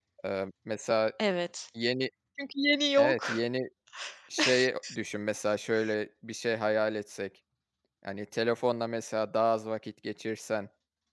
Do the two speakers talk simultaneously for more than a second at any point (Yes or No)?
No